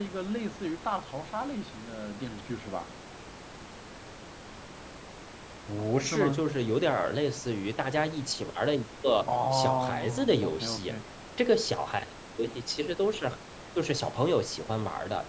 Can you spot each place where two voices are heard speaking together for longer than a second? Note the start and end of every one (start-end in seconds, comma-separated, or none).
9.3-10.8